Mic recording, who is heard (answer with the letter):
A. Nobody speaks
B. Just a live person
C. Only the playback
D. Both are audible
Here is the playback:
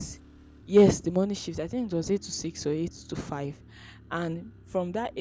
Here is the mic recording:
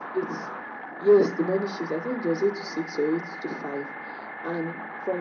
C